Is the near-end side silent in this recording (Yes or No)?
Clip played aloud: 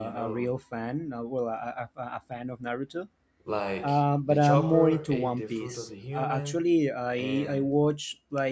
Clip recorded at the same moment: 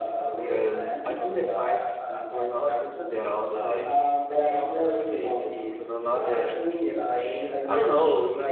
No